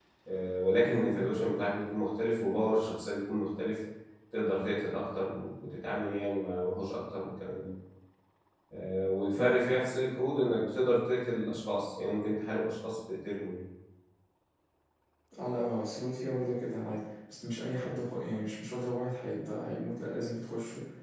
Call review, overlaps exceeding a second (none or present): none